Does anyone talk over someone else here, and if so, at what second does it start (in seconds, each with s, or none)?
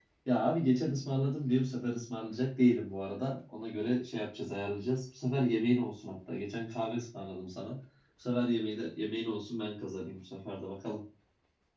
none